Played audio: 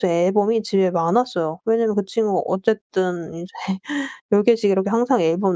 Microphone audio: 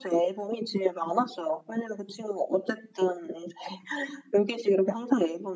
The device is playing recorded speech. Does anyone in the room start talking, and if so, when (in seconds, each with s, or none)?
none